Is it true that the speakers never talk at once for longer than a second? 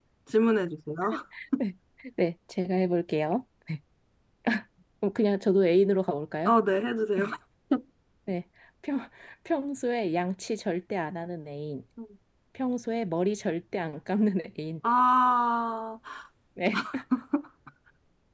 Yes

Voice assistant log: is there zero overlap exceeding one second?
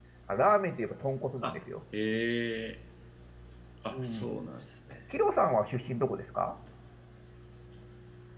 Yes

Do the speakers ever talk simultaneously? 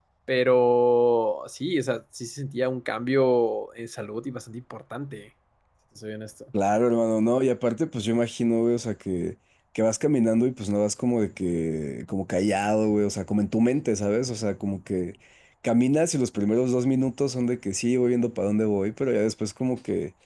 No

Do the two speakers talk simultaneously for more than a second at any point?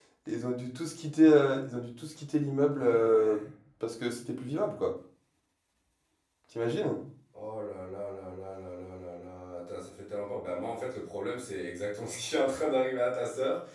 No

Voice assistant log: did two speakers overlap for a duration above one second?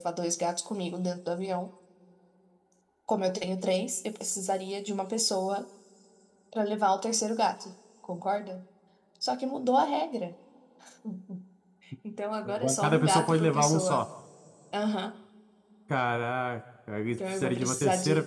Yes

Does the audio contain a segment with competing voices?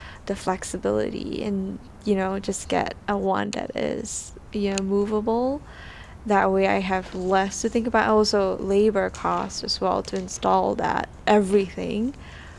No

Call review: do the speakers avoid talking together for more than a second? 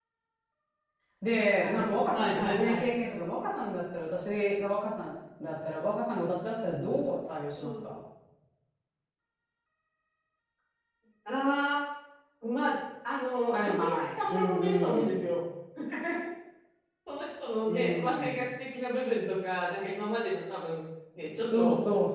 No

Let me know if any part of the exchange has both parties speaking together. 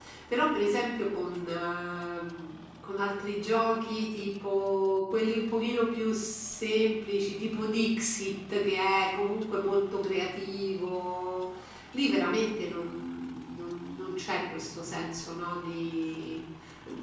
No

